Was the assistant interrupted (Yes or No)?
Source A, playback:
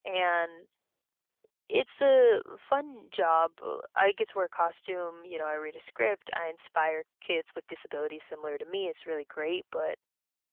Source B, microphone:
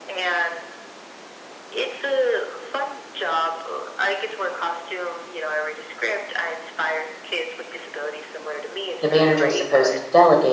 Yes